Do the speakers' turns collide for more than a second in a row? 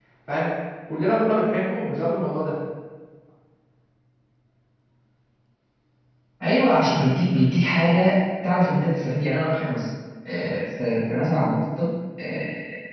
No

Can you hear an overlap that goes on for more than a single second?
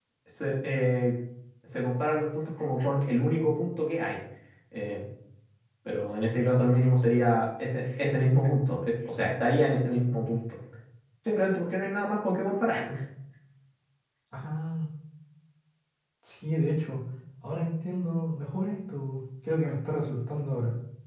No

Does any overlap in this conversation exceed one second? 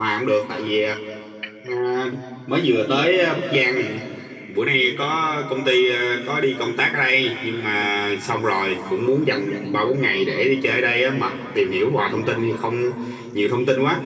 No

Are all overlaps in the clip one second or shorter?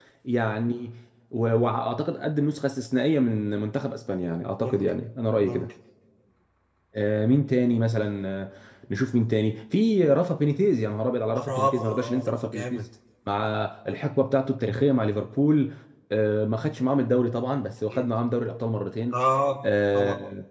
No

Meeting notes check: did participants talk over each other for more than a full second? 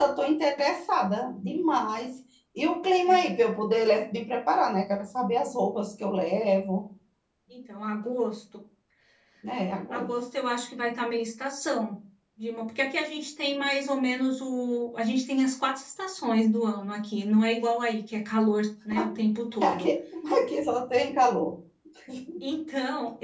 No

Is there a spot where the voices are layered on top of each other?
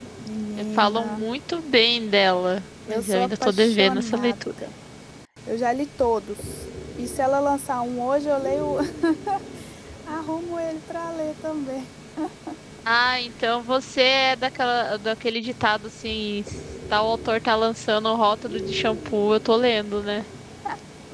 Yes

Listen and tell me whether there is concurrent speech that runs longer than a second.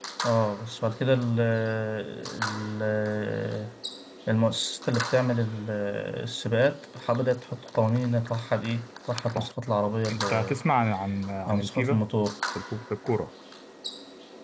No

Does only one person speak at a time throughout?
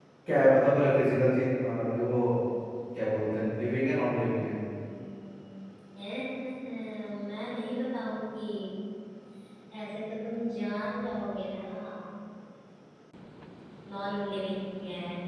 Yes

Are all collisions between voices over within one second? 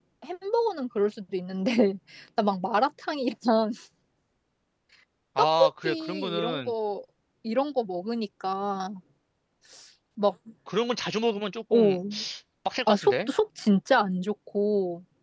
No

